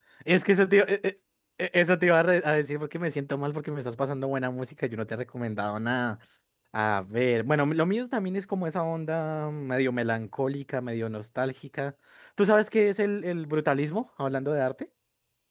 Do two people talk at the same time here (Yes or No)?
No